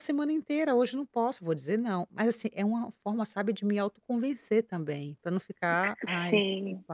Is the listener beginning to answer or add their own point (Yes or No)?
No